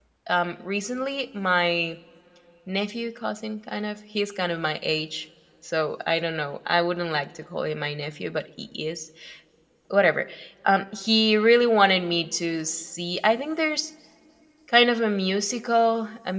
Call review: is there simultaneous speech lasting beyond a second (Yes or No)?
No